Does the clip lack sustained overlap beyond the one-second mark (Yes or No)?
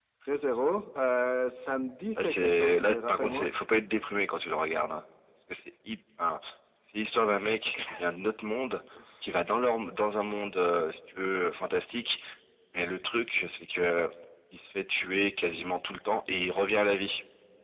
No